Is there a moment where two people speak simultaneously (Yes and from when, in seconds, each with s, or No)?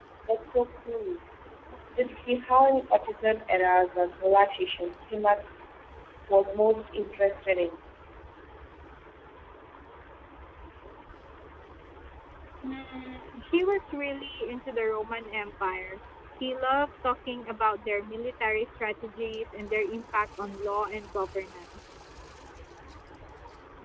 No